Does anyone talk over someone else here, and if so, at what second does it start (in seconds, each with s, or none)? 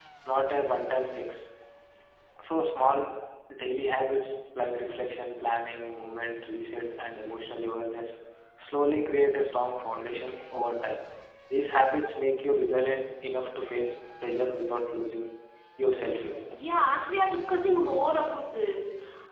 none